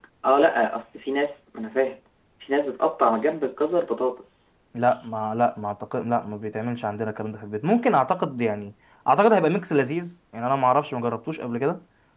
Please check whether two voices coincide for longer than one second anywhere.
No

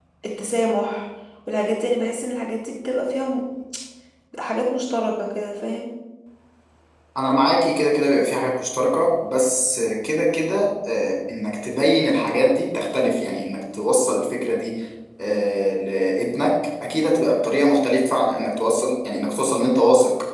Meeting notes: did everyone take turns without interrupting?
Yes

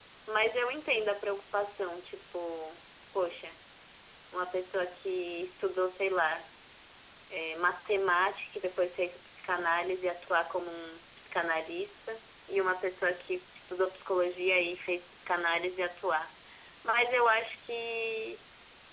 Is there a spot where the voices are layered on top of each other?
No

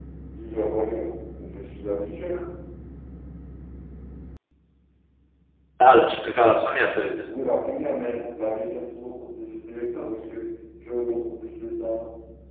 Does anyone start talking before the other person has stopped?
No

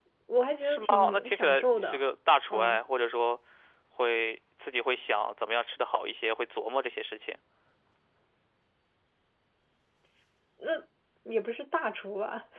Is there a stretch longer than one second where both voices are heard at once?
Yes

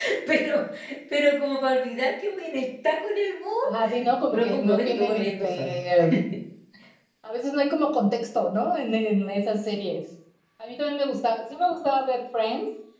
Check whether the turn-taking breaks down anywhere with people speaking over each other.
Yes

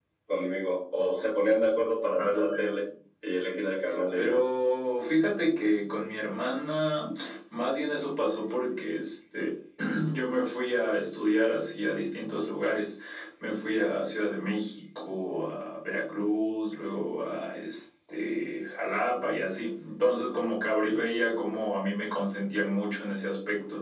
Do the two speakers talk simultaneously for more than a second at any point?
No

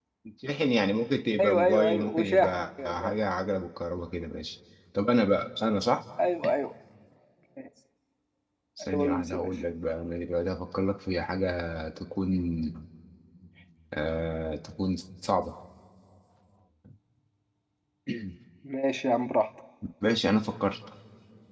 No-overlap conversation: No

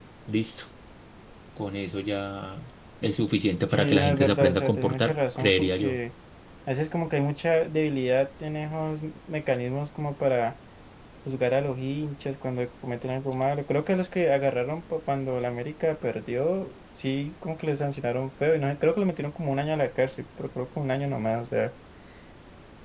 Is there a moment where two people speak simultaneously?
Yes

